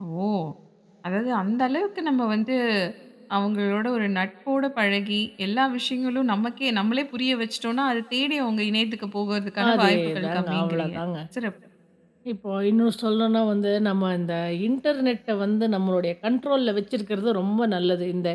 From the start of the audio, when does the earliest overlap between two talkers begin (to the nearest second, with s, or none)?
10 s